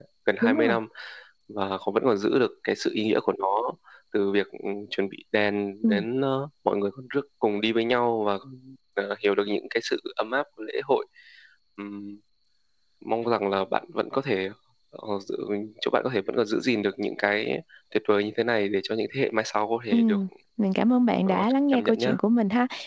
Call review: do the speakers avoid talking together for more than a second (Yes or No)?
Yes